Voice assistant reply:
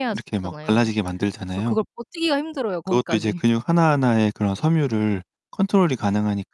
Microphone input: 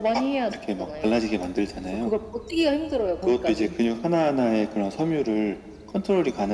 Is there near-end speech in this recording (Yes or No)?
No